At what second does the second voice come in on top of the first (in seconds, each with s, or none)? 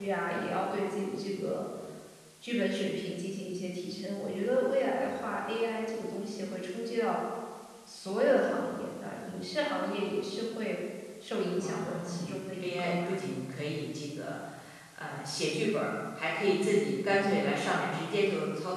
11.6 s